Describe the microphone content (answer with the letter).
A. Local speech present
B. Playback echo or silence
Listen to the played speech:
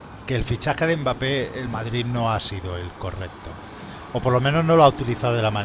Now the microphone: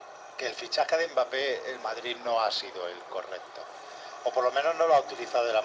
B